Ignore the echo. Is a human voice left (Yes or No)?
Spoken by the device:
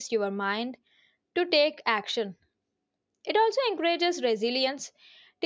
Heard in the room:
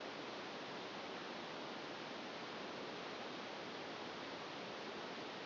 No